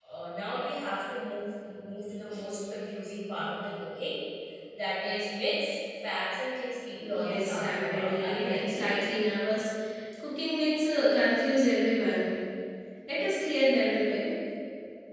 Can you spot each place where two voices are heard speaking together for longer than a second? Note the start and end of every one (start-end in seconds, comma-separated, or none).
7.1-8.8